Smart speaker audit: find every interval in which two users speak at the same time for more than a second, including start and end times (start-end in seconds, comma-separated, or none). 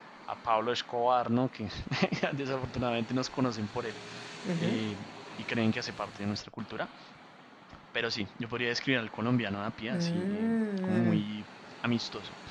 9.9-11.2